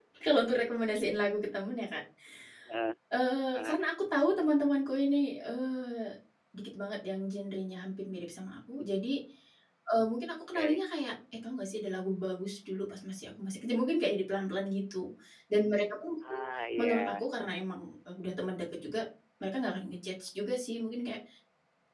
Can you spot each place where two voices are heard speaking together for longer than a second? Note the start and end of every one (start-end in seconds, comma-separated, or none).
none